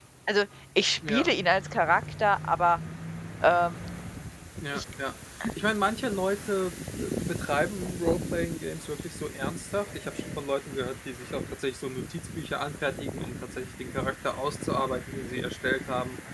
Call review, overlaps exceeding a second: none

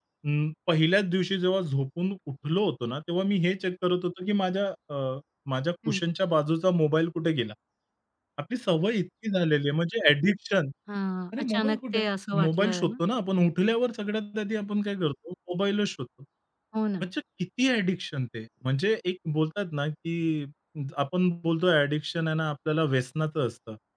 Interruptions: present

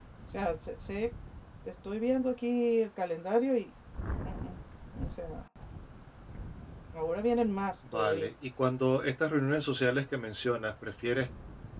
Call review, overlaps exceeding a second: none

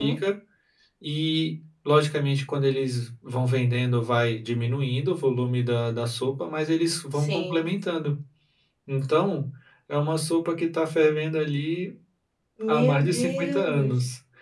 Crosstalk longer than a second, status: present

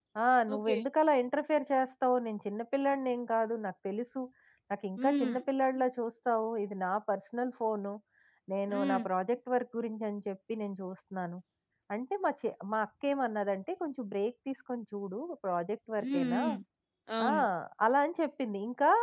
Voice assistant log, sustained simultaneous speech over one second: none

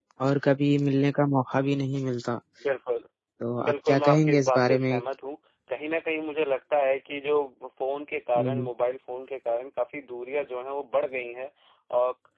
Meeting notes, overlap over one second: present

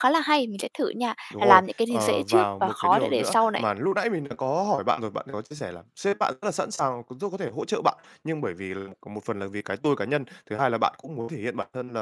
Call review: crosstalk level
present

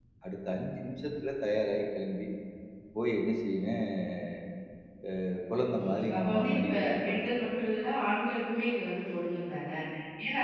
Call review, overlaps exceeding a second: present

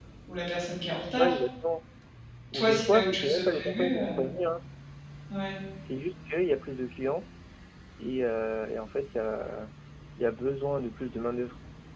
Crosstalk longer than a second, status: present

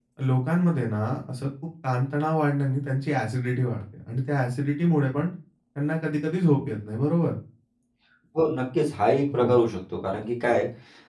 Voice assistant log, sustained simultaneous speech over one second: none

